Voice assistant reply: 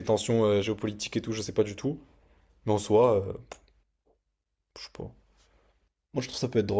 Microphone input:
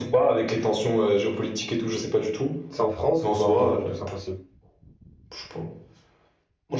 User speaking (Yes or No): Yes